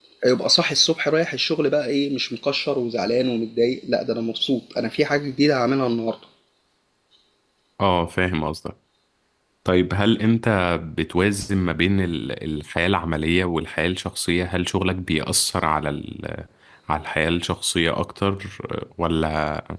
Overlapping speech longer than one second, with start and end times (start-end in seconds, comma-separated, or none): none